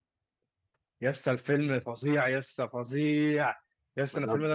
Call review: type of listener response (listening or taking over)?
listening